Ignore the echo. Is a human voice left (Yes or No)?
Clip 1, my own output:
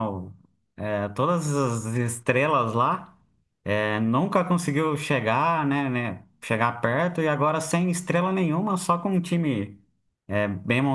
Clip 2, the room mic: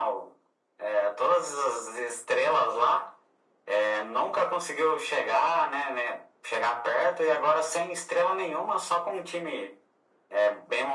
No